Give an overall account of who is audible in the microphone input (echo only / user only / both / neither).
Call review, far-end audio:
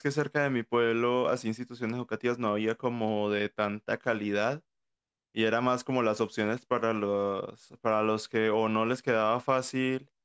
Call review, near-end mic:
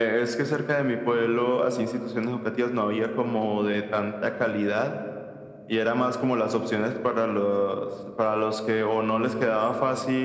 echo only